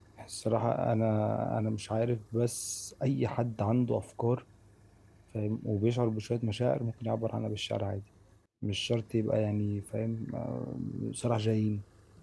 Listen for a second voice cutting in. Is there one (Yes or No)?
No